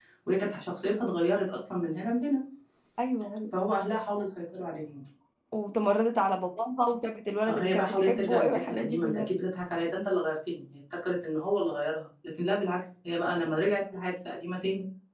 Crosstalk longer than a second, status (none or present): present